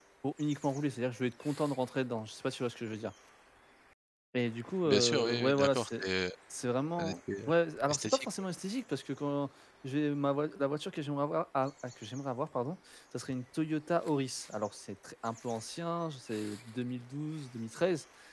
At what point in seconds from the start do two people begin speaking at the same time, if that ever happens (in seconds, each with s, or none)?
4.8 s